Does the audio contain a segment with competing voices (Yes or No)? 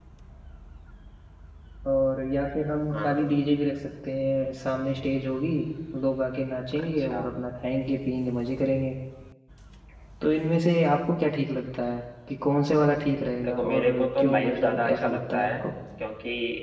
Yes